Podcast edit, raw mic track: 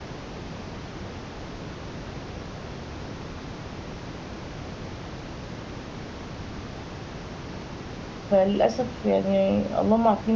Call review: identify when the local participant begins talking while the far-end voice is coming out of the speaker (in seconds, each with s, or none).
8.3 s